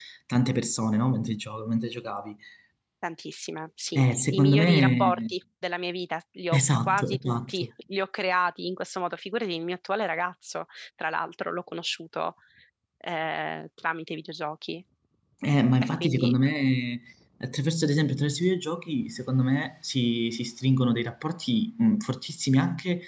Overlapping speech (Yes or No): Yes